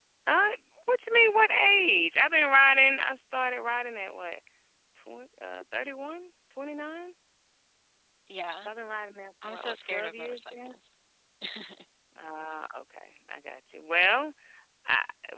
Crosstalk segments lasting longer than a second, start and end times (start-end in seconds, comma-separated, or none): 9.5-10.7